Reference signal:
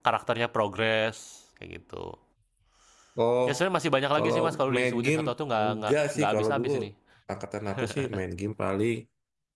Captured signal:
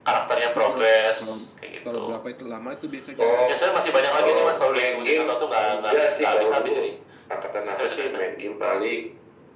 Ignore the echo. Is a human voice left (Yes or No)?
Yes